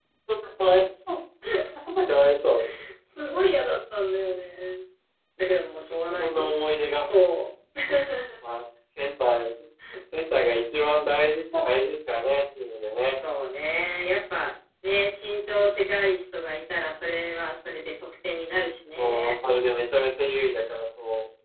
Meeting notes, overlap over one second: none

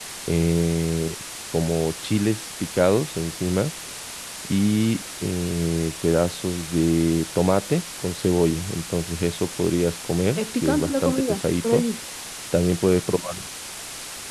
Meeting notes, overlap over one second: present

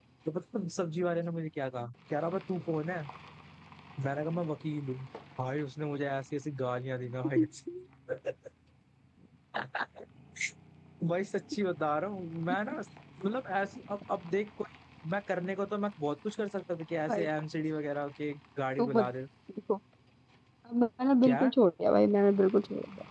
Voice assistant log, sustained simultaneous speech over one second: none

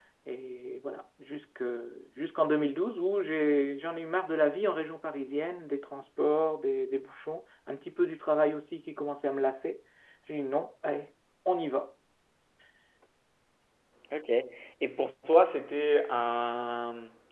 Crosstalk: none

